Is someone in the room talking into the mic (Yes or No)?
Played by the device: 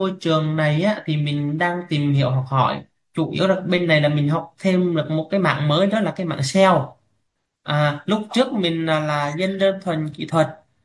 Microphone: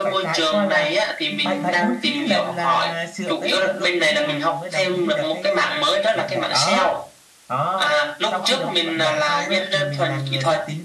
Yes